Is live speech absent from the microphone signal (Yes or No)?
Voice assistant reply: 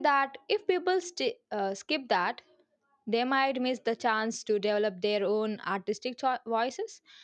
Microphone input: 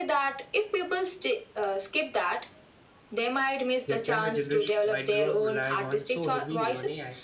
No